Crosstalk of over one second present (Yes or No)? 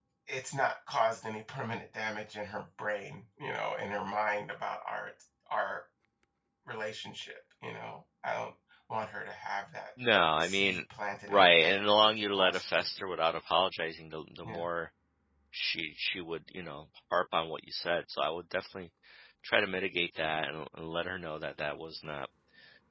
Yes